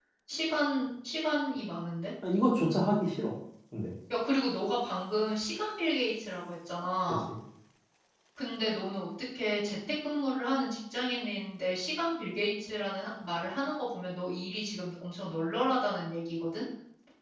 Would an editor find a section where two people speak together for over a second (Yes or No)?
No